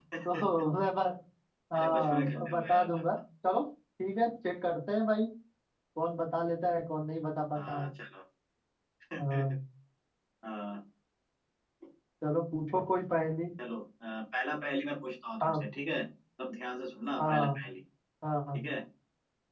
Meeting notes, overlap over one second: present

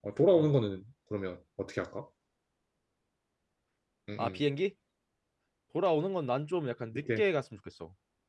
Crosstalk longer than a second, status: none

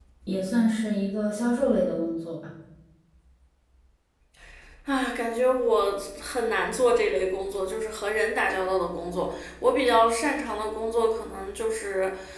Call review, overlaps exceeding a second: none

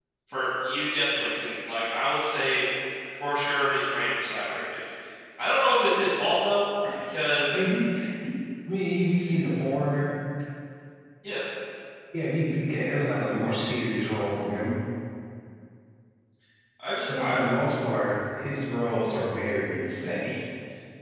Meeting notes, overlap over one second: none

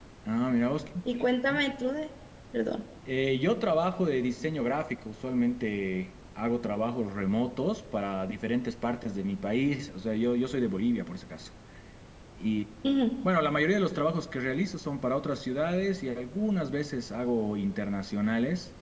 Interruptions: none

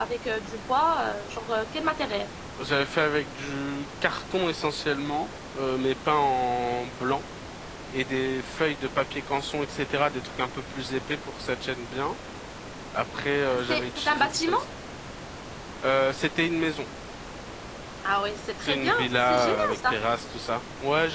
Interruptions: present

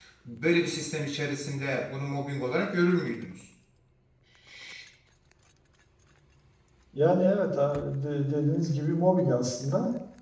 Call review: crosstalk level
none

